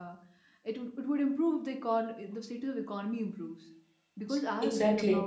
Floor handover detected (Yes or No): No